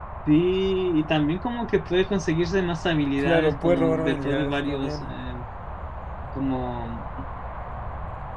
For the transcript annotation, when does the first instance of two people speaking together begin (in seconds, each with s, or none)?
3.2 s